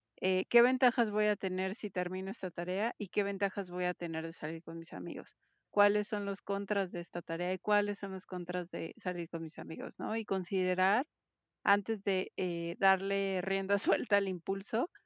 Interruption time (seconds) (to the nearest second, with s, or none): none